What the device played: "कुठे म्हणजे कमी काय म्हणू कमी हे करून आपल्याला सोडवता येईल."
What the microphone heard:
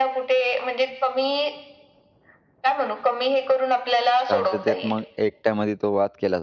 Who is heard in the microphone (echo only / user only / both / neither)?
both